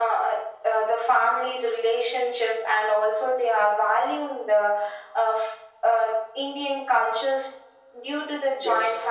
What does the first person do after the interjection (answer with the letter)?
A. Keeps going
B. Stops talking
A